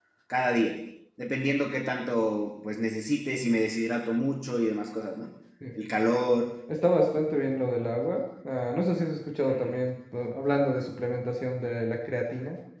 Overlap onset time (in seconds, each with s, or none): none